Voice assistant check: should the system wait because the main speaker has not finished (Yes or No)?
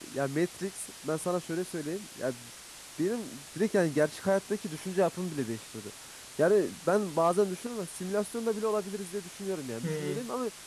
Yes